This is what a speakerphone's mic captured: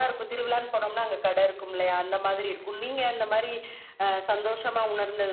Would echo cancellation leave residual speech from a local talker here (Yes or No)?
No